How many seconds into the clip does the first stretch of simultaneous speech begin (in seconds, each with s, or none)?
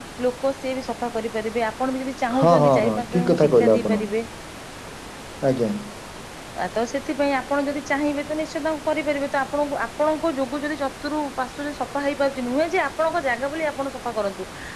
2.3 s